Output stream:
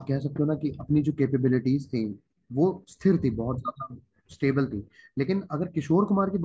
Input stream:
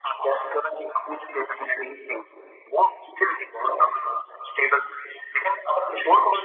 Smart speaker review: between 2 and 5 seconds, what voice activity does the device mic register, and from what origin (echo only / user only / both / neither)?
echo only